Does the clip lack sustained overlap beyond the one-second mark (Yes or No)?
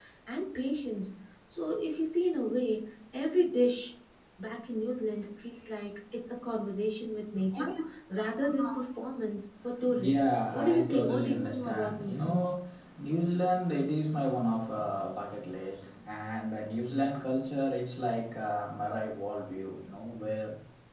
No